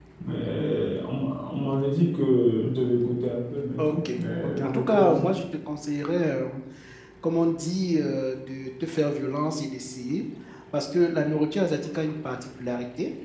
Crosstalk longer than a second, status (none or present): present